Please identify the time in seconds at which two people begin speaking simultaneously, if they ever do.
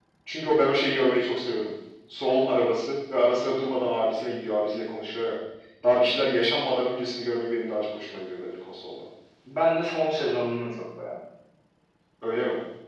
none

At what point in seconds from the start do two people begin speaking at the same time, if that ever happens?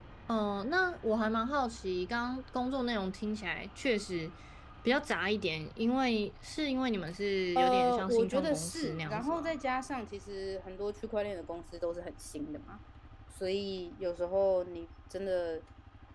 7.5 s

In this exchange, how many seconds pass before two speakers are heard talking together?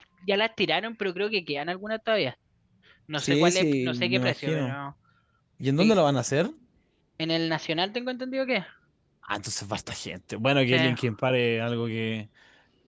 3.2 s

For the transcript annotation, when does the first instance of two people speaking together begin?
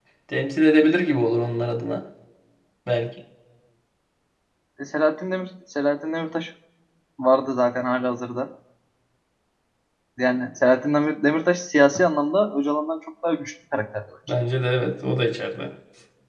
none

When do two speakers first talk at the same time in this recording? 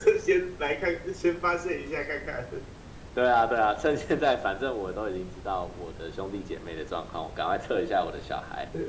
none

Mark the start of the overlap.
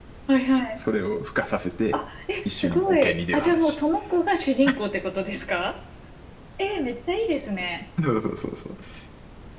2.5 s

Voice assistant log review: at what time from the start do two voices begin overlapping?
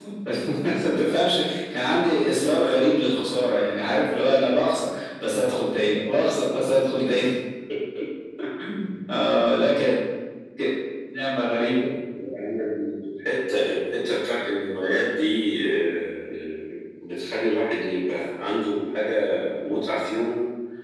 none

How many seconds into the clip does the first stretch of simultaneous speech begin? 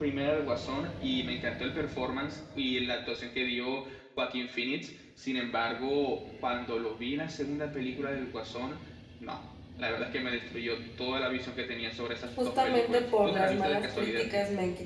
12.4 s

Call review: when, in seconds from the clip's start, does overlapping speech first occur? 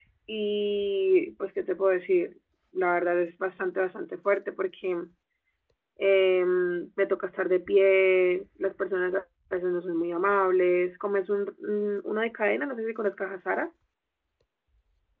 none

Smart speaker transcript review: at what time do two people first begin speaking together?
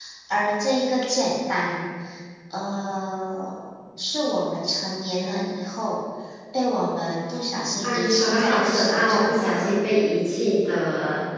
7.8 s

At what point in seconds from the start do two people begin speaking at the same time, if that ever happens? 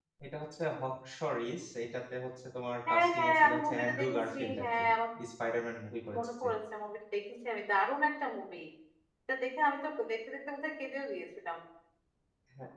2.9 s

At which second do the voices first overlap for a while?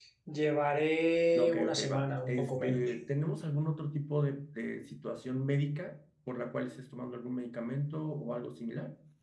1.4 s

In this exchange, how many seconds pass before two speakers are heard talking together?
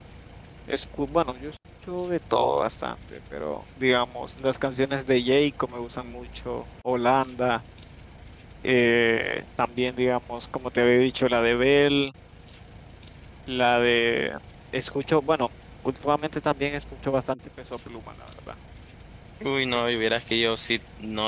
none

